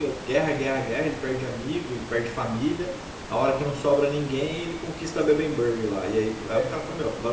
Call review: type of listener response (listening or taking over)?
listening